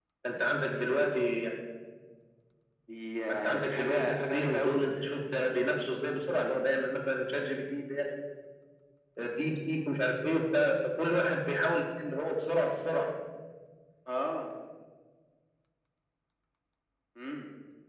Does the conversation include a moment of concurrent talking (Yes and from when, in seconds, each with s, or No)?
Yes, from 3.5 s